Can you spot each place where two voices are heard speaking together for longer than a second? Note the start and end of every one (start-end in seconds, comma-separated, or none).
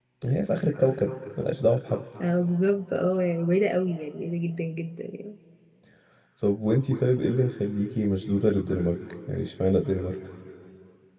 none